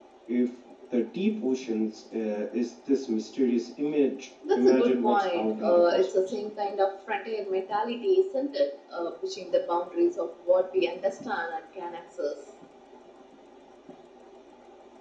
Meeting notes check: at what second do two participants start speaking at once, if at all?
4.4 s

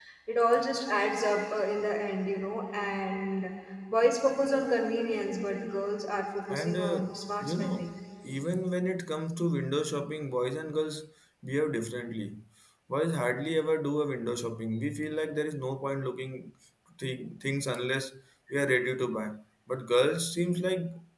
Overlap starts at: 6.5 s

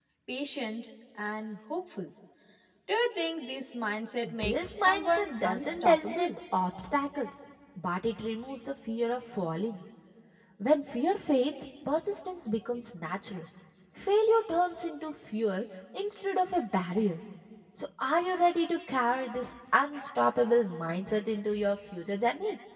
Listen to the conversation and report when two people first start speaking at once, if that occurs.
4.2 s

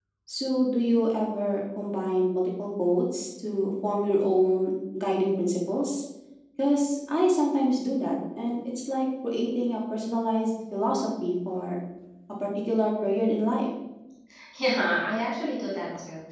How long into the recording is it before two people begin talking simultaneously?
none

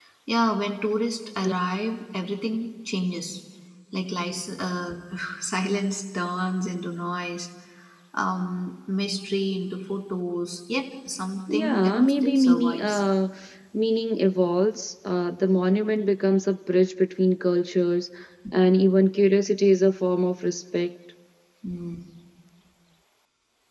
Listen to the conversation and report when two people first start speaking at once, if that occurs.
11.5 s

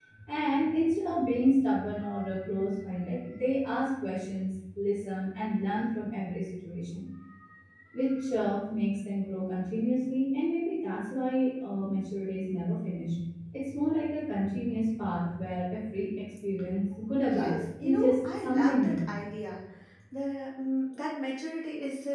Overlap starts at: 17.3 s

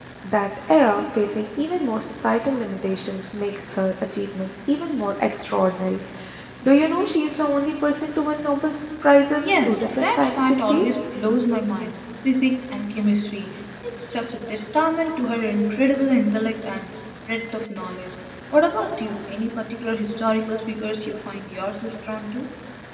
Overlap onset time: 9.4 s

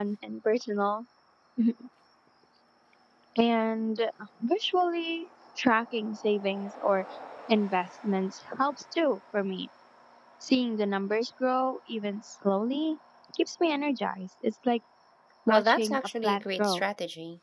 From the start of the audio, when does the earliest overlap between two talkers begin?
15.5 s

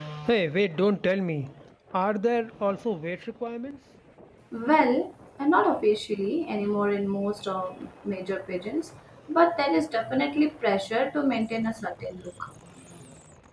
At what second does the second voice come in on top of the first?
none

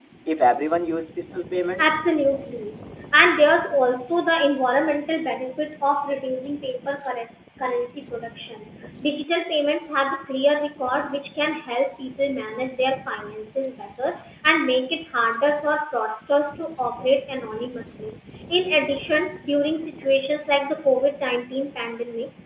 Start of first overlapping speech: none

